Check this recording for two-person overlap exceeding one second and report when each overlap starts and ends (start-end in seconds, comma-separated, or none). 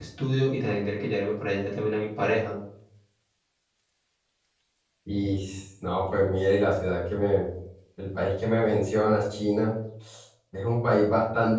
none